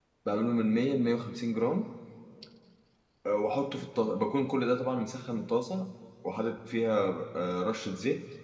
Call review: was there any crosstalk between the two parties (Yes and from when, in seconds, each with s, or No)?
No